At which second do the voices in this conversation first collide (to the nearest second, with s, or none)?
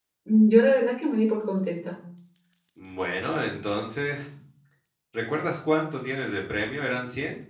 none